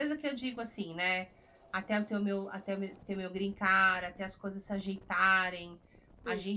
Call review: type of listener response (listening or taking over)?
listening